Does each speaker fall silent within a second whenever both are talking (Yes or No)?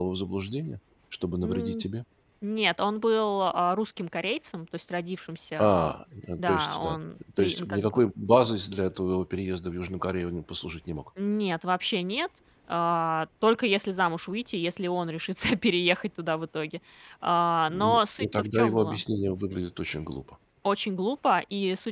No